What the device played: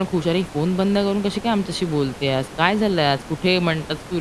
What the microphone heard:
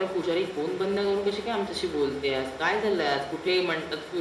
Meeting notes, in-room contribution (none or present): none